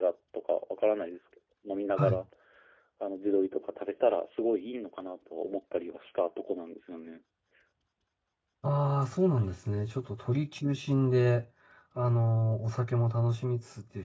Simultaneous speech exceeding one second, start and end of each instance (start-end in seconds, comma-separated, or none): none